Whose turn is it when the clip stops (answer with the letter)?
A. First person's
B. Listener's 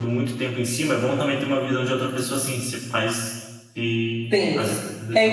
B